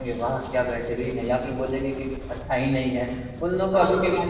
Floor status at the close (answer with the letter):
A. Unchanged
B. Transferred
A